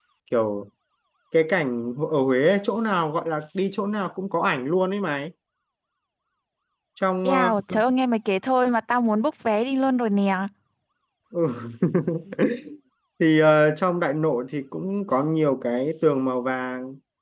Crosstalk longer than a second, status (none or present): none